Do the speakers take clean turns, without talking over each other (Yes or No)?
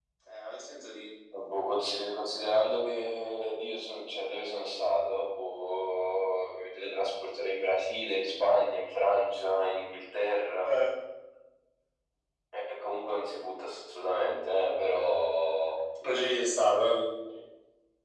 Yes